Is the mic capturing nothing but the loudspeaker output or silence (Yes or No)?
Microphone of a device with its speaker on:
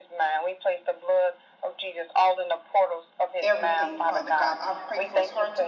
No